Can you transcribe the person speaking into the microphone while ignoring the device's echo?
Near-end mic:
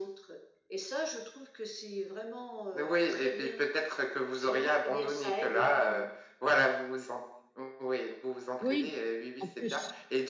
Oui, en plus.

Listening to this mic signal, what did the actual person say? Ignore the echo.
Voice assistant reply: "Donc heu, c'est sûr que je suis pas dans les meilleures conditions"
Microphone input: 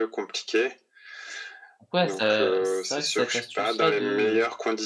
Donc ouais, ça c'est vrai que cette astuce-là de, heu,

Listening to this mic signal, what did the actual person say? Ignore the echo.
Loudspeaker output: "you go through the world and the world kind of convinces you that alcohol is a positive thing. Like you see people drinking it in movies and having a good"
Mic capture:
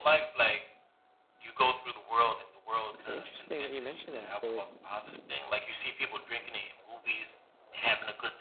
But interesting that you mentioned that. So it,

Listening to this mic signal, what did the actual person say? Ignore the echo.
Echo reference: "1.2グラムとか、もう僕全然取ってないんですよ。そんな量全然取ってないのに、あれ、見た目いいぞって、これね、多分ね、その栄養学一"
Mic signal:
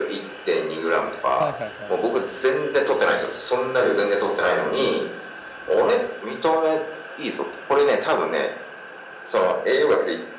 はいはいはい。

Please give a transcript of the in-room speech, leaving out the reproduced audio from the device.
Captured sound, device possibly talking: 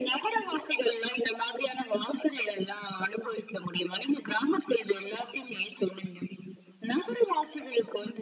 none

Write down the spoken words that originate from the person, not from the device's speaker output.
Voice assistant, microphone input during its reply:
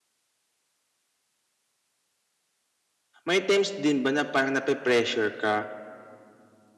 may times din ba na parang nape-pressure ka?

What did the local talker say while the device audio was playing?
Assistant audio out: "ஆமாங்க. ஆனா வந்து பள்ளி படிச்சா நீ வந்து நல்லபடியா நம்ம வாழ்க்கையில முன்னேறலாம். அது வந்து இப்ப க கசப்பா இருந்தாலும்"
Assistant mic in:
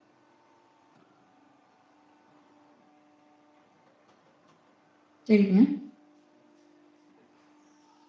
சரிங்க.

